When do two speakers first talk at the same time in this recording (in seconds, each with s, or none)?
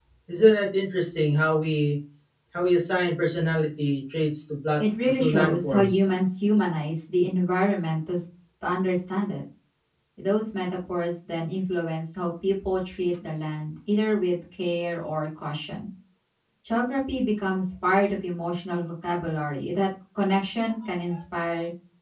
4.8 s